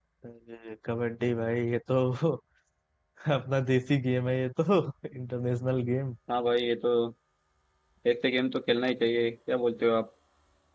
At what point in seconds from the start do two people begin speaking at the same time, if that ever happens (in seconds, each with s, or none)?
none